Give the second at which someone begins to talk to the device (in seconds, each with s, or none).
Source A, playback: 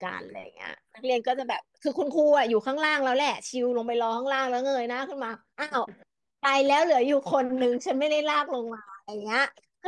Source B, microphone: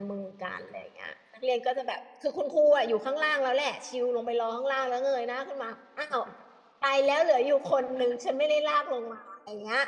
none